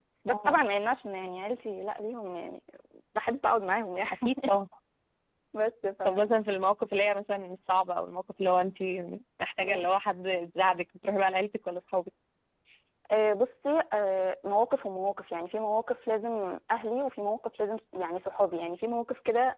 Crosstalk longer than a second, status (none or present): none